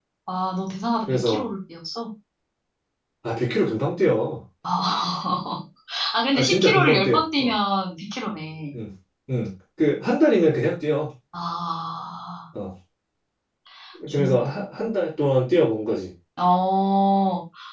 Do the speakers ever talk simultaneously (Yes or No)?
Yes